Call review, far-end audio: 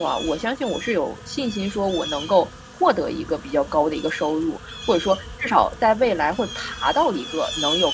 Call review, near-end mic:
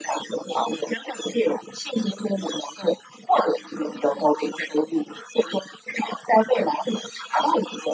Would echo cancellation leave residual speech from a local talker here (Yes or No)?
No